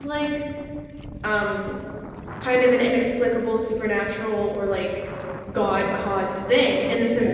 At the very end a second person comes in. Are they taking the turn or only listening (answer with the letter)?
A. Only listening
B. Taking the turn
A